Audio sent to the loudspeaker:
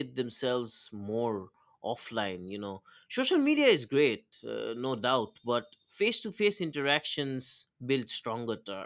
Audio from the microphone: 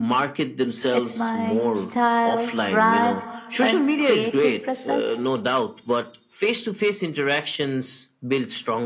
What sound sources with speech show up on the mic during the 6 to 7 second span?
echo only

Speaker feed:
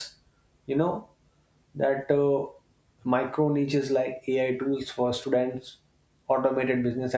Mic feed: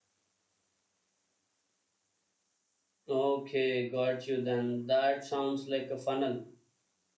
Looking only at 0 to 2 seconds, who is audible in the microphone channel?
neither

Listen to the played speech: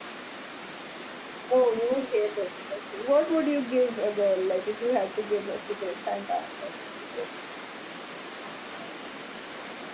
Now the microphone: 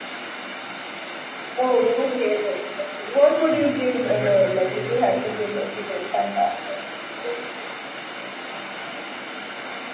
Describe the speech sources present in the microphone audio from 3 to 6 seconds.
both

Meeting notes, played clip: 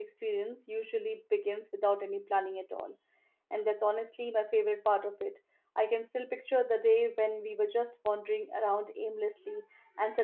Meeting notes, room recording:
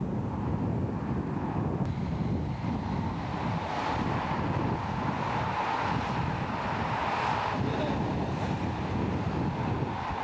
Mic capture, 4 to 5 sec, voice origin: neither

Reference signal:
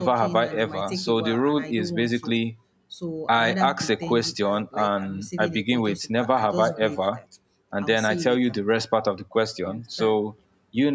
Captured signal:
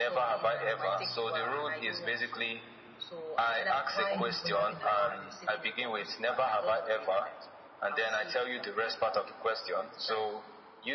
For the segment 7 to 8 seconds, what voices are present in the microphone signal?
echo only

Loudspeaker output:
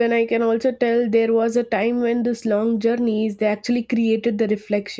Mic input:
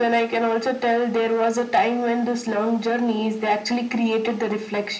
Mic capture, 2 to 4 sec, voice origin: echo only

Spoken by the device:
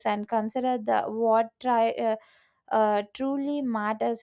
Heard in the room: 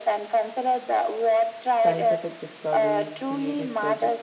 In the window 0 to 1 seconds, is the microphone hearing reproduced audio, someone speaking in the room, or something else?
echo only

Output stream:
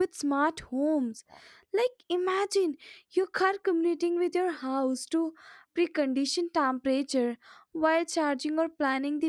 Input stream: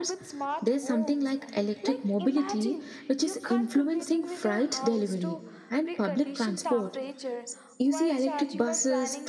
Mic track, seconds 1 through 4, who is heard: both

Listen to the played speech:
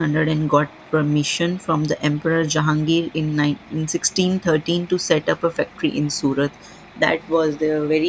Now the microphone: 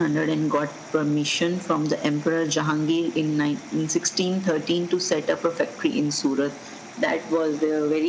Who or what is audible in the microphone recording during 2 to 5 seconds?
echo only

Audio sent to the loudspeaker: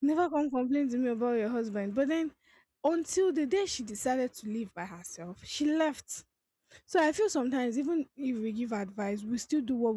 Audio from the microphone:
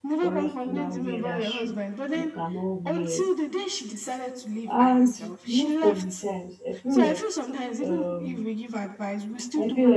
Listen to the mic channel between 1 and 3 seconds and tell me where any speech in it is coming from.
both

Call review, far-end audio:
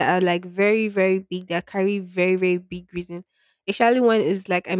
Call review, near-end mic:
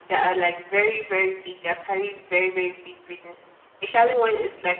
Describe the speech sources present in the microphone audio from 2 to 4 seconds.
echo only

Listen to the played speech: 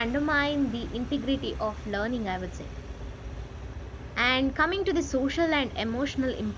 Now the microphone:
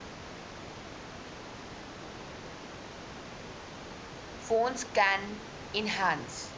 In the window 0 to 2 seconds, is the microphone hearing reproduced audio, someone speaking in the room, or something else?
neither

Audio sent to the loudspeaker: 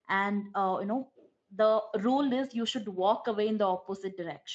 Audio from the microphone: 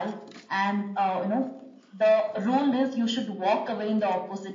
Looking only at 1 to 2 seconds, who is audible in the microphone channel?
echo only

